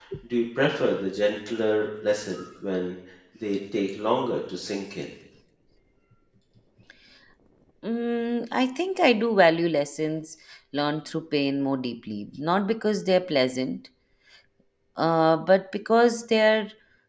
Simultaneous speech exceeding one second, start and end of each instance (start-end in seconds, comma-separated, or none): none